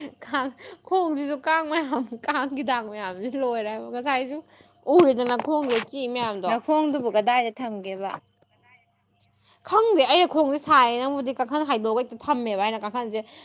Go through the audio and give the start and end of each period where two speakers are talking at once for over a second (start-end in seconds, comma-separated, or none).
none